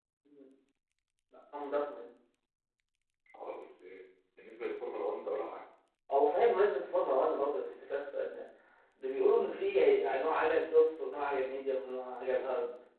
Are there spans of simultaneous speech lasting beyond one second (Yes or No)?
No